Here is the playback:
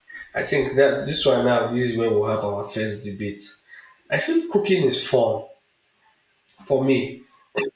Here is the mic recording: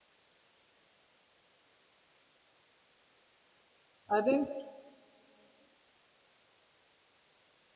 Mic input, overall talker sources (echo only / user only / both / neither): user only